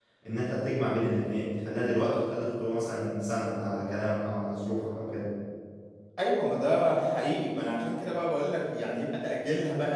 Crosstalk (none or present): none